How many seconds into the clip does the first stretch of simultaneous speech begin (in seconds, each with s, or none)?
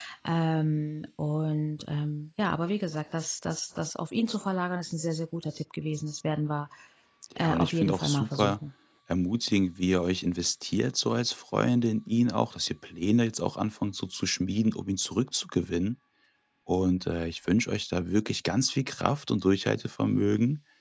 7.4 s